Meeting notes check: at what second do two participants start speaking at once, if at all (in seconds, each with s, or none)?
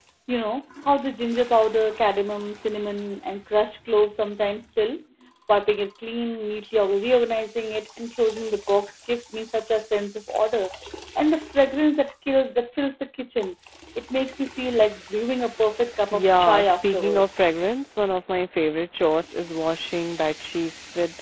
16.1 s